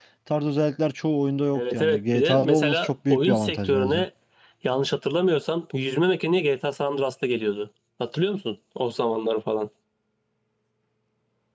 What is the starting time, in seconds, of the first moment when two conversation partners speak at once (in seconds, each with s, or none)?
1.5 s